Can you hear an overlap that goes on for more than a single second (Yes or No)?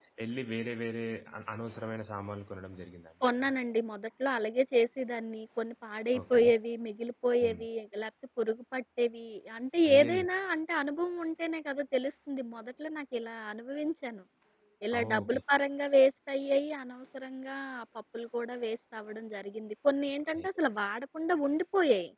No